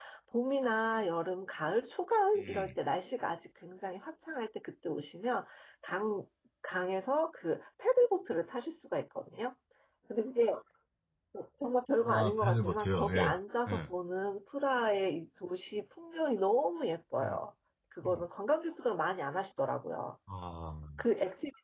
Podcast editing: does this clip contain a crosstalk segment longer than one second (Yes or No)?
Yes